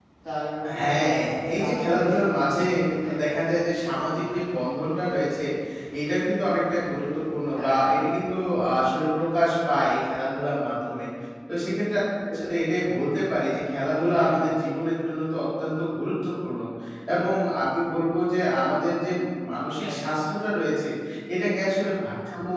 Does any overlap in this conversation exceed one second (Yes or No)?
Yes